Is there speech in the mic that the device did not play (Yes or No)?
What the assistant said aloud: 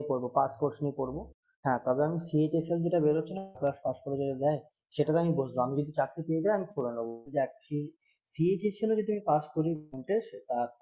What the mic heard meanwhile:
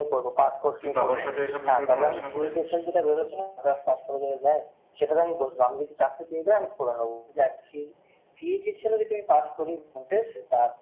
Yes